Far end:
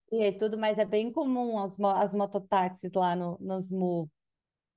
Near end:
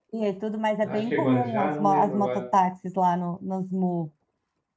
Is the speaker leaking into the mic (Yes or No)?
Yes